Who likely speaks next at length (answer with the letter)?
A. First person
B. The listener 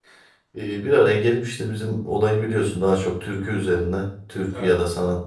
A